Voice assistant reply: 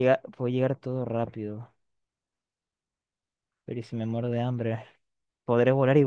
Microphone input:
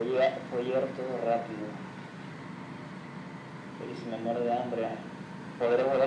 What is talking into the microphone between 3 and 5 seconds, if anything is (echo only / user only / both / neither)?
echo only